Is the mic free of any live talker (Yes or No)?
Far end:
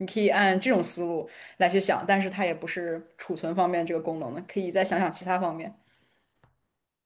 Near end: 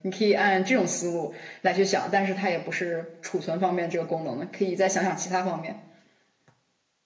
Yes